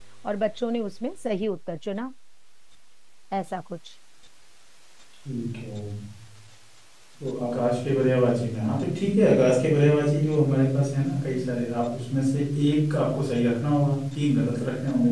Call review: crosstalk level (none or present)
none